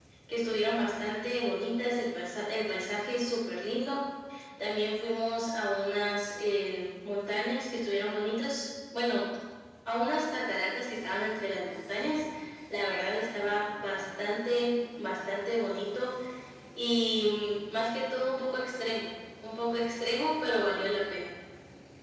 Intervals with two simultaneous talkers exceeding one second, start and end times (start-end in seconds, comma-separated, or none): none